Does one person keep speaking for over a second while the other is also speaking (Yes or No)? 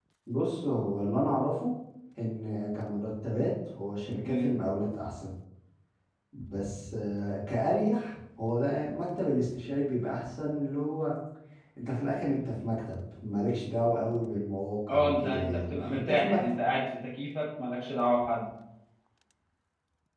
Yes